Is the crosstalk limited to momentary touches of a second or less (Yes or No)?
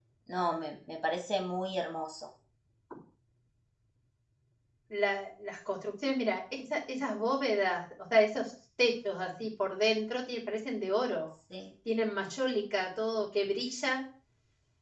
Yes